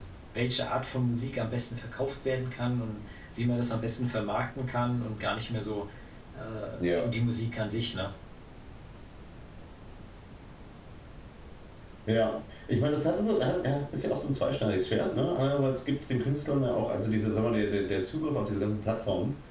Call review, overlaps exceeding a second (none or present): none